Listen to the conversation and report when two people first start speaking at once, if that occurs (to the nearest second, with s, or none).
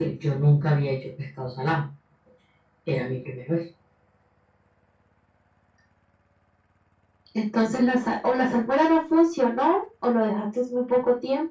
none